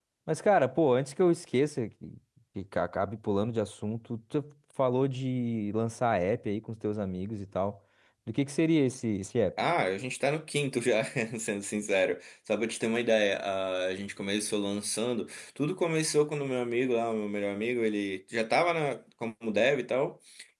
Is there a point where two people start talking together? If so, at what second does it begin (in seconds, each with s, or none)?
none